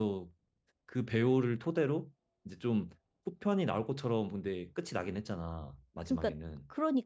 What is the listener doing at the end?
taking over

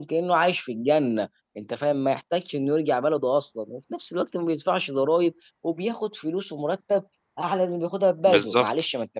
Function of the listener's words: listening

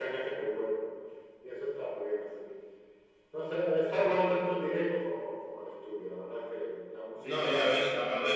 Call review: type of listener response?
taking over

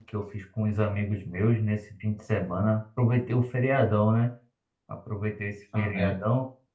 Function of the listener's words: listening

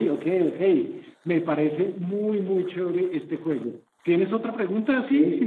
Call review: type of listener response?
taking over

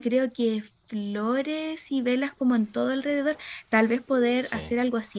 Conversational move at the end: listening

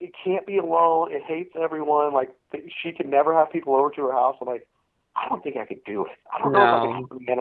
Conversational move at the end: listening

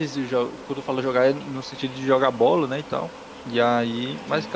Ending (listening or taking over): listening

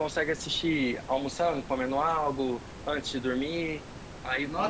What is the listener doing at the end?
taking over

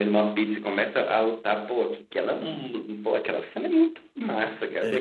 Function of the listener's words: listening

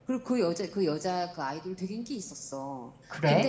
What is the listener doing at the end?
listening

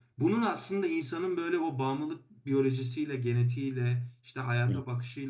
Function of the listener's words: listening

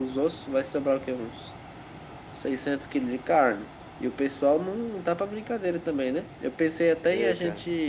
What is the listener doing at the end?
listening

